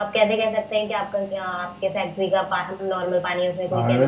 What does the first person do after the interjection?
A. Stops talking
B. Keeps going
A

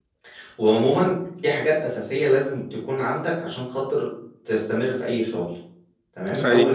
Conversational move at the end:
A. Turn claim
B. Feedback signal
B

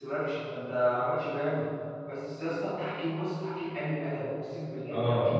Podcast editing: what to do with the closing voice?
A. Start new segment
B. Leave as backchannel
A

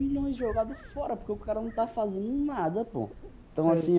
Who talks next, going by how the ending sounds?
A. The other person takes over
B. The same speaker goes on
B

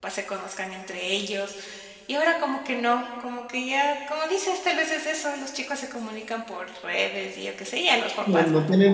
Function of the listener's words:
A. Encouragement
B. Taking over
B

